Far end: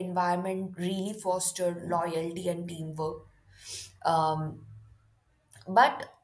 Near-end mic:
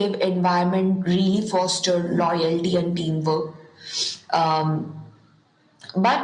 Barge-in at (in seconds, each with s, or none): none